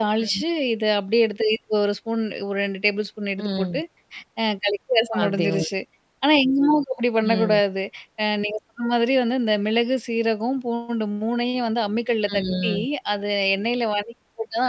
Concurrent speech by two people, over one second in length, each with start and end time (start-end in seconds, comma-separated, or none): none